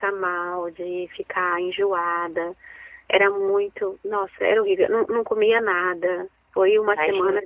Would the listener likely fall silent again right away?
No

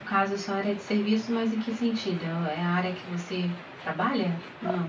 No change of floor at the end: No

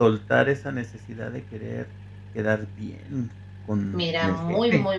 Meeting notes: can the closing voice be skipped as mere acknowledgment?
No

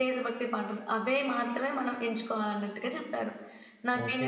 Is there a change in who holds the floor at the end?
Yes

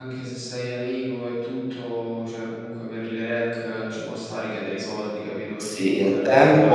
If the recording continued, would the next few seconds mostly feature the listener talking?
Yes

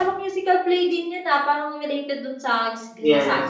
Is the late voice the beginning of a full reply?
Yes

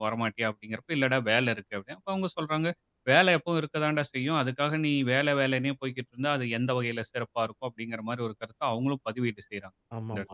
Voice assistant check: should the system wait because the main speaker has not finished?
No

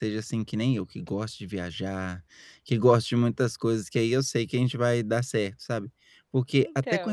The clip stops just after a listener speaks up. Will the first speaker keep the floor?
Yes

